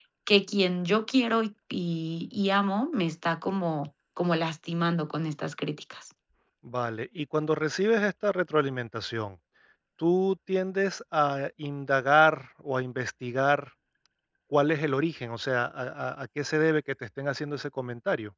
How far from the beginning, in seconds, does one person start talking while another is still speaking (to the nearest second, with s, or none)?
none